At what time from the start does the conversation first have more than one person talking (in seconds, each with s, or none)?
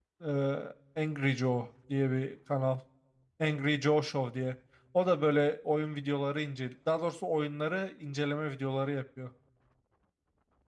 none